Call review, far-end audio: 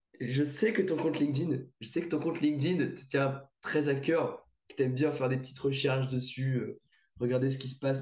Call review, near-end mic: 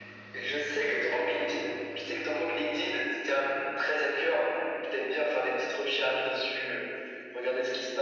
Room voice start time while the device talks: none

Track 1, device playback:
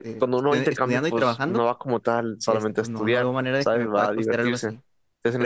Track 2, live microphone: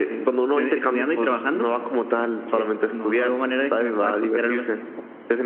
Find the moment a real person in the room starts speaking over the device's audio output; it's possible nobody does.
none

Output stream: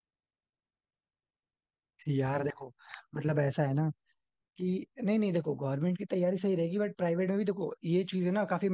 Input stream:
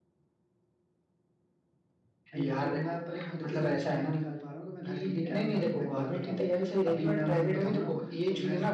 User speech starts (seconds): 2.3 s

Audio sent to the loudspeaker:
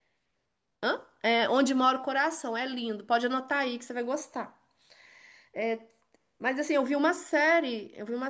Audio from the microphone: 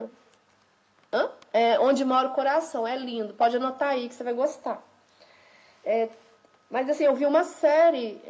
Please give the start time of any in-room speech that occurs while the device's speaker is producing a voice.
none

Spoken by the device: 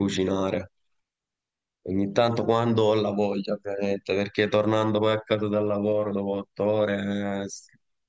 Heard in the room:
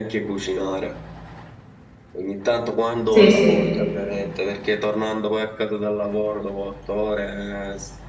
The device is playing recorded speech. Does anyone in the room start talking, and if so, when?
3.1 s

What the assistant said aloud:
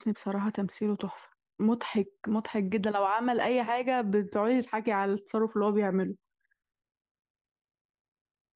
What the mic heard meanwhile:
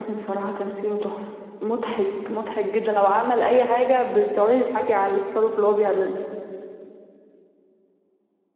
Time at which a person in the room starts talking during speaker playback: none

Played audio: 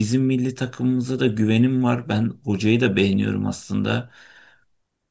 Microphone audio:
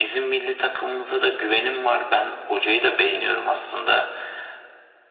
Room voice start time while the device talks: none

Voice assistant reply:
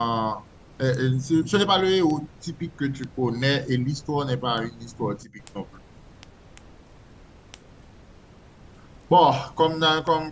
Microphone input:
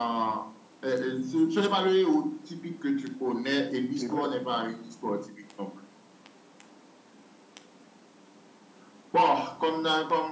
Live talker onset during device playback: 4.0 s

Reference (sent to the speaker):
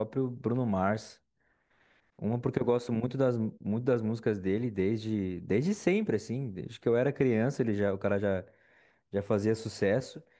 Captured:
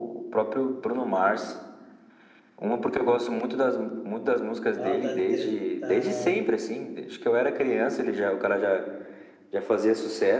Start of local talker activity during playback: 4.8 s

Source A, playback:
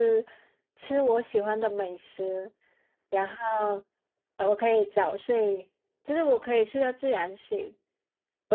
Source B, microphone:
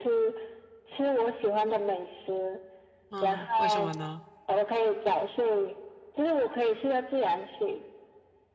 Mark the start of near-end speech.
3.1 s

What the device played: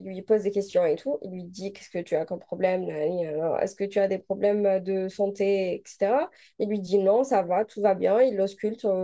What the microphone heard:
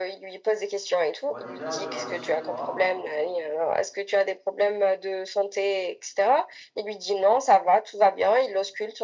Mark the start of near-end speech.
1.3 s

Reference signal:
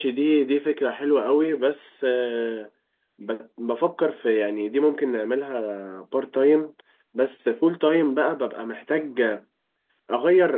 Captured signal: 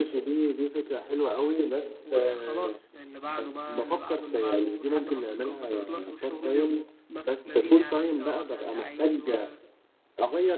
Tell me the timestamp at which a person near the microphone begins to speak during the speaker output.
2.0 s

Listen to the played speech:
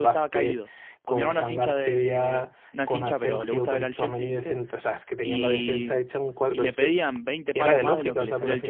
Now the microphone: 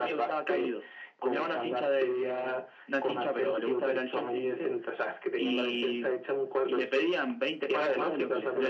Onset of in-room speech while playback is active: none

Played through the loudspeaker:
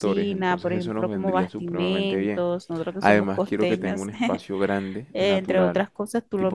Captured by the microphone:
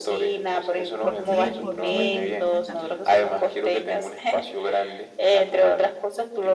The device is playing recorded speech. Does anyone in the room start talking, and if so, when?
1.0 s

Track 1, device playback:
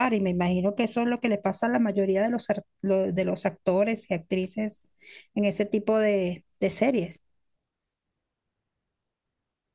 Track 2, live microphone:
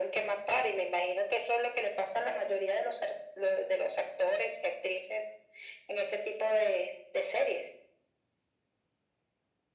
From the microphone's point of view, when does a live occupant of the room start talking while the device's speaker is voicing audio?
none

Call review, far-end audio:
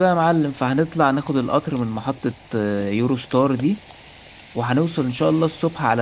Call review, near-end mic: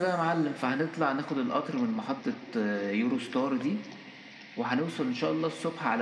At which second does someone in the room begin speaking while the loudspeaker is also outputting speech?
none

